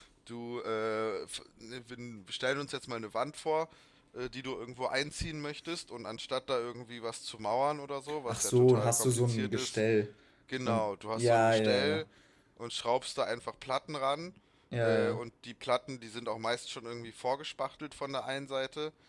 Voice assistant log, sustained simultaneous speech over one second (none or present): present